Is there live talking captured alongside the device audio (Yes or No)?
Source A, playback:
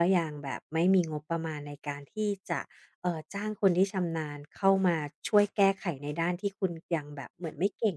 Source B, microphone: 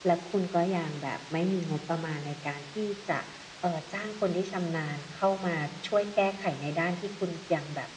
No